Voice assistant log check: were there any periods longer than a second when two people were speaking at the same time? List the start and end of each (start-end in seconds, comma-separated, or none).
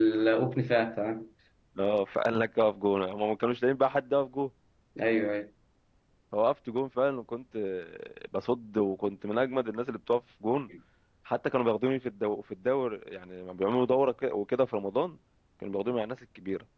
none